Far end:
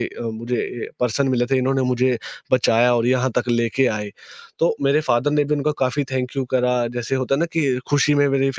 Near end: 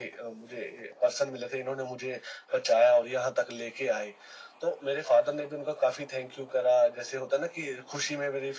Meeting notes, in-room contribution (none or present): none